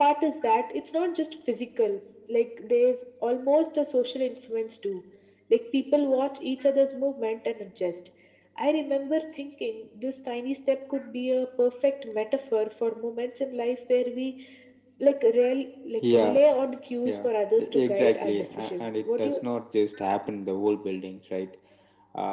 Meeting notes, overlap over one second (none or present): present